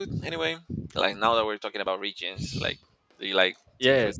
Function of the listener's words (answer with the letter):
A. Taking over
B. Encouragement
A